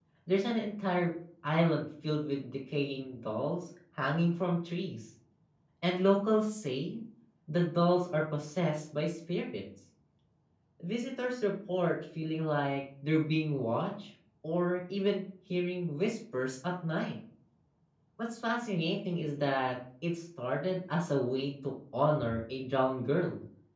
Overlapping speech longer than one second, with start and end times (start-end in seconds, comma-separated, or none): none